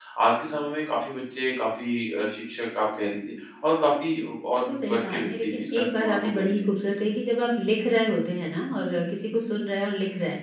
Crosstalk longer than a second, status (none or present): present